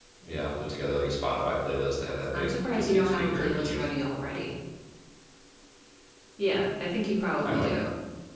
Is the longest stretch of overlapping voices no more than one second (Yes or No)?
No